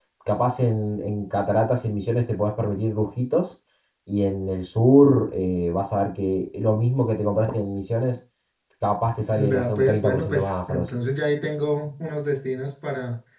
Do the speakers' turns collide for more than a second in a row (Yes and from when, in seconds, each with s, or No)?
Yes, from 9.4 s